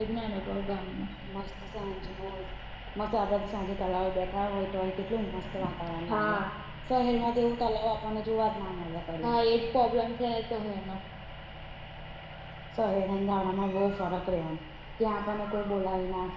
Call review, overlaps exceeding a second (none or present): none